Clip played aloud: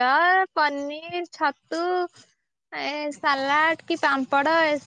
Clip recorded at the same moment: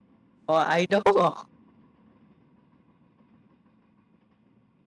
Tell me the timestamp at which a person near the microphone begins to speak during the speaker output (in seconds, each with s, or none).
0.5 s